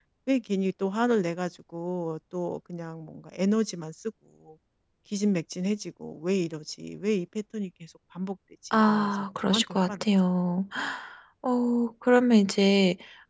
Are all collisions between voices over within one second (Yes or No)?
No